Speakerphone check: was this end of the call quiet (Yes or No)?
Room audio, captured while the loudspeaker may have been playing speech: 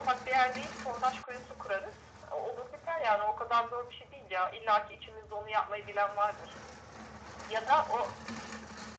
Yes